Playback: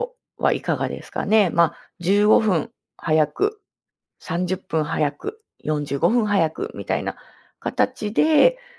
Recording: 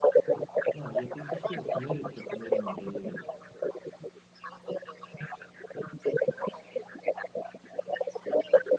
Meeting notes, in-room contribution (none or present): present